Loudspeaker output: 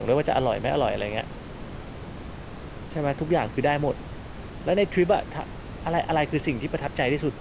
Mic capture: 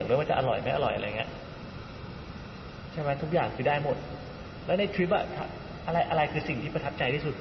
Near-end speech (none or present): none